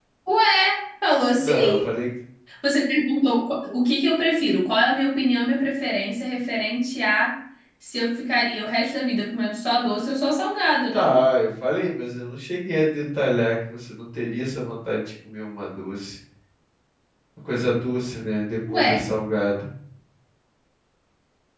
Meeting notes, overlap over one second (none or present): none